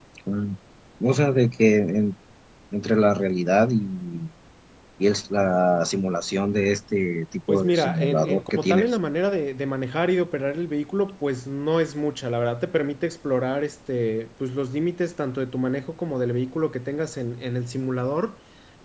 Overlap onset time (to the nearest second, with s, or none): 7 s